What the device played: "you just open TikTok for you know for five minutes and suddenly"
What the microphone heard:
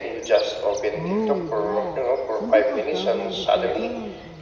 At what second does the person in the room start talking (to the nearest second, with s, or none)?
1 s